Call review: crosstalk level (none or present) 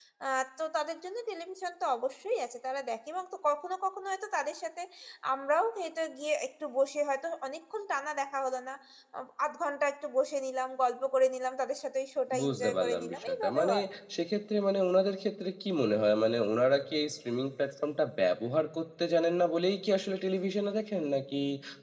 present